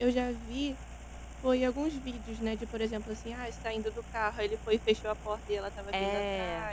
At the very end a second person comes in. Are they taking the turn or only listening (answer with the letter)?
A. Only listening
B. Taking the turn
A